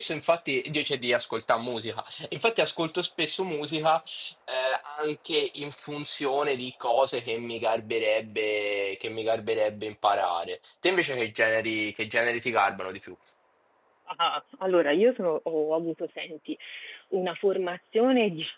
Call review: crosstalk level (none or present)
none